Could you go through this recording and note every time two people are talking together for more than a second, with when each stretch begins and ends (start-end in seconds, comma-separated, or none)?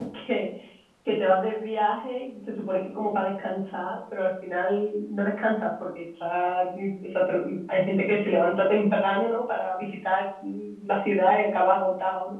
none